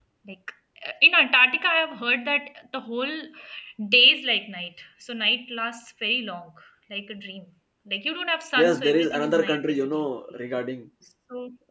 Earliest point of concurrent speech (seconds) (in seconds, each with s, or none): 8.6 s